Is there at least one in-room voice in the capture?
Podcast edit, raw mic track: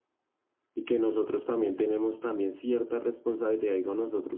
Yes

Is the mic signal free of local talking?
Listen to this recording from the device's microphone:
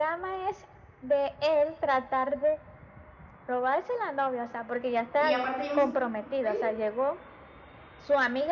No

